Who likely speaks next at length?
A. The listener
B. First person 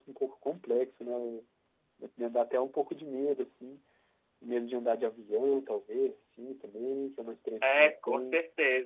A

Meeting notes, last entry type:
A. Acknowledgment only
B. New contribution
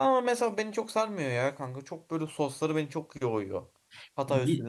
A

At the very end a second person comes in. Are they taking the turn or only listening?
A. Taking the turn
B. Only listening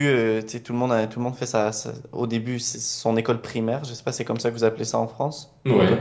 A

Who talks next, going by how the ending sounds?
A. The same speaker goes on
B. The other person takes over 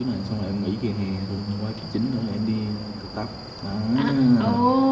B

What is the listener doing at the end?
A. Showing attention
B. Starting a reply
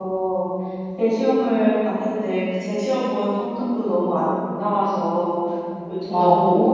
A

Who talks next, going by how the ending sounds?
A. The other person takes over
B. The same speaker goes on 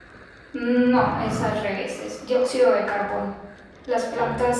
B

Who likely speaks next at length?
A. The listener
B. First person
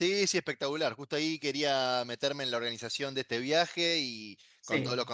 B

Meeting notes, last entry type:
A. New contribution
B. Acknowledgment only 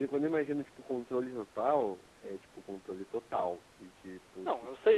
A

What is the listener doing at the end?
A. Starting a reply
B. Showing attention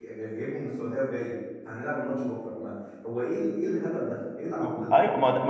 A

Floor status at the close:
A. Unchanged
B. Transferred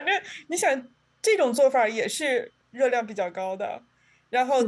A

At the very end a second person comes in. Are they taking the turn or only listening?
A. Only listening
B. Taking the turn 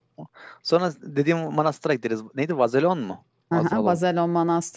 B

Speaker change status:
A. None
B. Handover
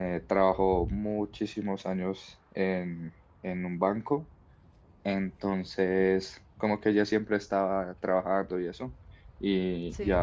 A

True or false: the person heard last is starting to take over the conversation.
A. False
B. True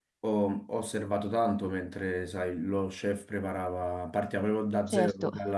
A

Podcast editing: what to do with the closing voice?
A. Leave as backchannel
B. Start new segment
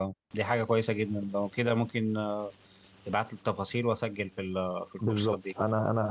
B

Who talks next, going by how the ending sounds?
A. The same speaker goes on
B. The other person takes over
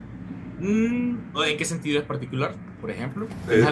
B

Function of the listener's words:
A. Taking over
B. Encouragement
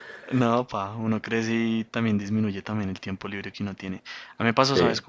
B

